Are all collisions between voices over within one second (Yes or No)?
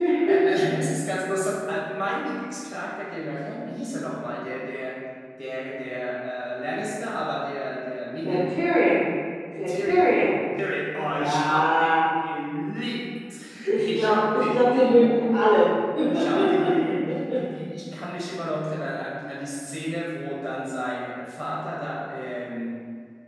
No